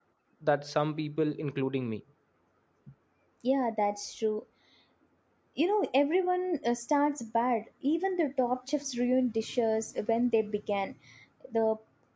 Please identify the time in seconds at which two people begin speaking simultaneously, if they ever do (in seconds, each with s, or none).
none